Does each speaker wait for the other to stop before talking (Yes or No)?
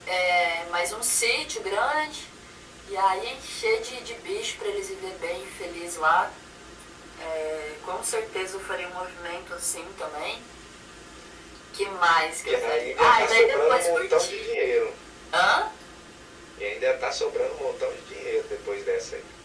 No